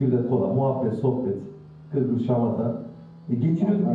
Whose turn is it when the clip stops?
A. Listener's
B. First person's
B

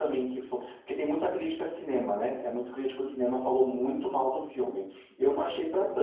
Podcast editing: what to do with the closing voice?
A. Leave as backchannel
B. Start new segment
A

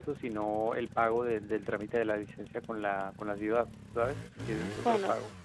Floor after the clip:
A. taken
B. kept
A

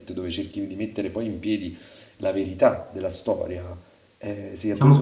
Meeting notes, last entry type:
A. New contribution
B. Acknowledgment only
B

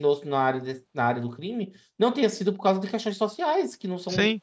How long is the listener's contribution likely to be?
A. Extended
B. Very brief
A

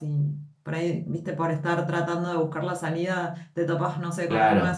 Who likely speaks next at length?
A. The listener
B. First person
B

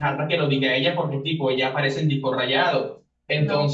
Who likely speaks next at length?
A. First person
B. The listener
A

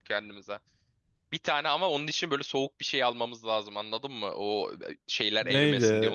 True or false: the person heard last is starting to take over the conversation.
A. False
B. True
B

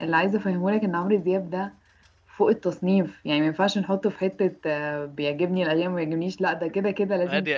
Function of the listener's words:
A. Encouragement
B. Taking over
B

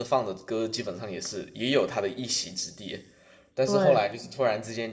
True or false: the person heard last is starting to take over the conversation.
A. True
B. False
B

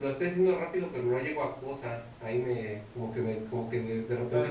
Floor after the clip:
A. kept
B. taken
B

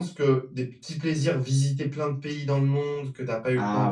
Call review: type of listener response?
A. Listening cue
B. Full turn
A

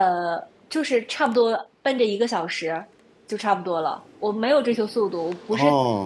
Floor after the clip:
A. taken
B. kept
B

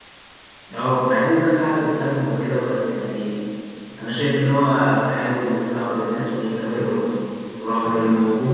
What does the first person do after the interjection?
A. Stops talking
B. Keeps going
B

